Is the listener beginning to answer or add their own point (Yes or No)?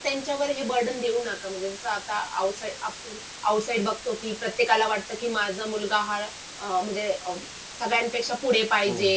Yes